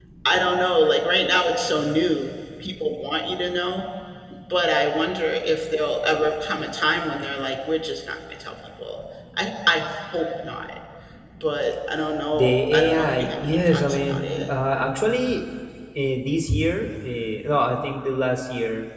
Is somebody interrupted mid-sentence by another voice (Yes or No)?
Yes